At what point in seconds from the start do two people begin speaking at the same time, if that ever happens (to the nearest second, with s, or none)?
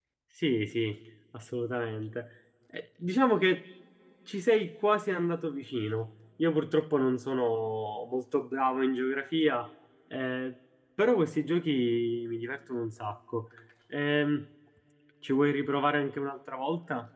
none